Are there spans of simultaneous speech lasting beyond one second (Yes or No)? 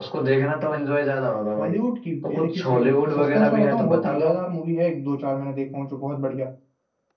Yes